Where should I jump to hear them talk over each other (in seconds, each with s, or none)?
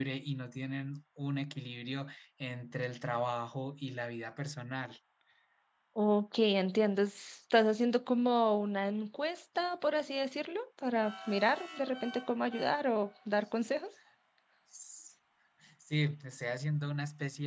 none